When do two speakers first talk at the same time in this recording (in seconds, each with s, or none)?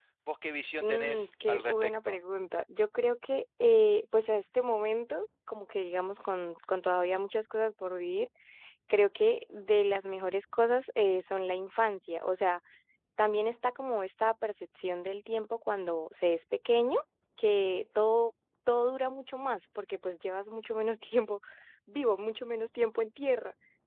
0.8 s